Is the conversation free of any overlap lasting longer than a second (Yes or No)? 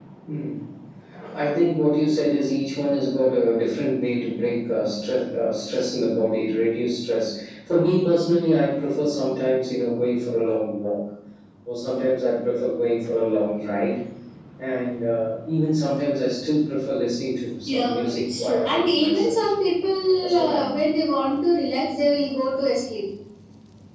No